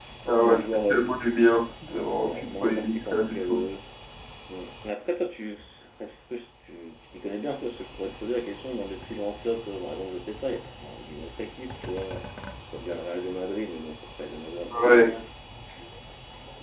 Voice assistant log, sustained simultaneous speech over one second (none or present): present